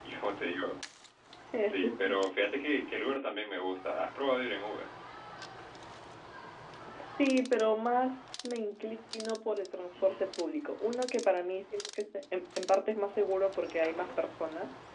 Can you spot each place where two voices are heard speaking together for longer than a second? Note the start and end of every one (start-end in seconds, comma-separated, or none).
none